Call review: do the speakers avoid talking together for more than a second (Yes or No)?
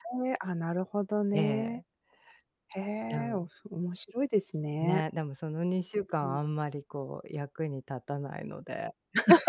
Yes